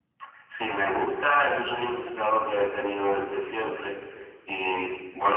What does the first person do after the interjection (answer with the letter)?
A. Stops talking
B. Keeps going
B